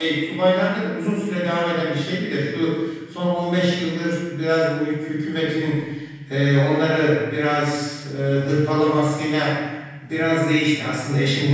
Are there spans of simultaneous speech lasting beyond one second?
No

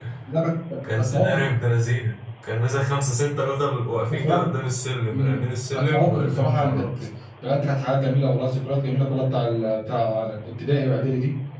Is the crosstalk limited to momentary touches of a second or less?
No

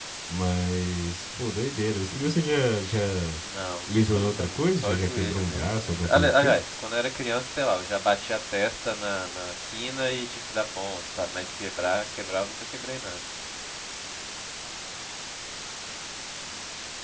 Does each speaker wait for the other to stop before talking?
No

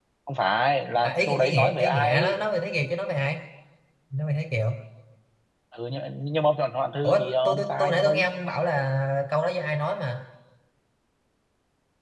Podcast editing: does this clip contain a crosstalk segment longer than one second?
Yes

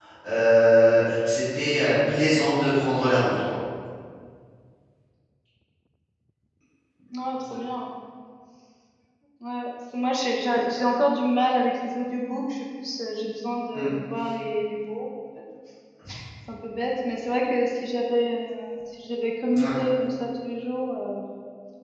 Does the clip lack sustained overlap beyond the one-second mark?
Yes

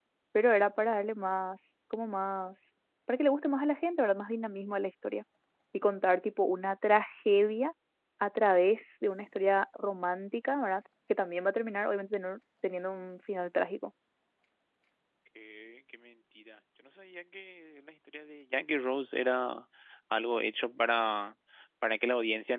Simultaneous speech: No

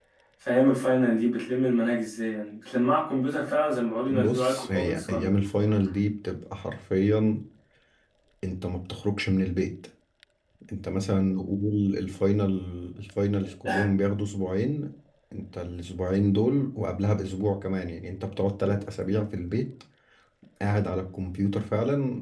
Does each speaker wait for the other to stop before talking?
No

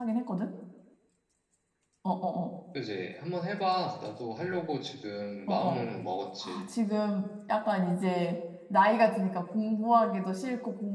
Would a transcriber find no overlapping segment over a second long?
Yes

